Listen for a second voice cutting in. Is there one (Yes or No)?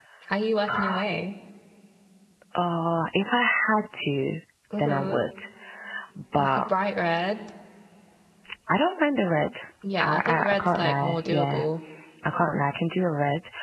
Yes